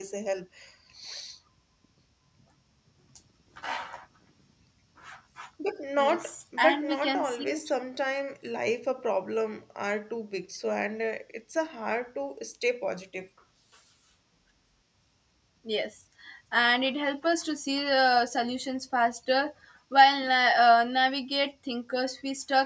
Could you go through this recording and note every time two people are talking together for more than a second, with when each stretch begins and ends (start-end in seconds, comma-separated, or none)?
6.0-7.5